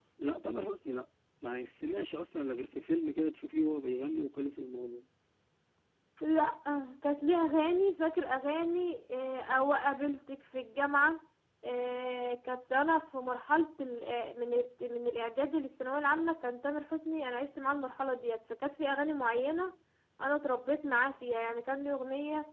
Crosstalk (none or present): none